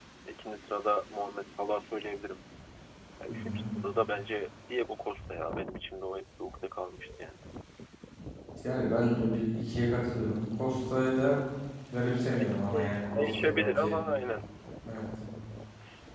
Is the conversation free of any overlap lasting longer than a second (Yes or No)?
No